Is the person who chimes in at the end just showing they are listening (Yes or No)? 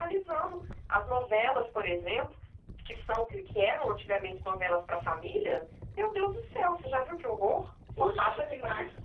No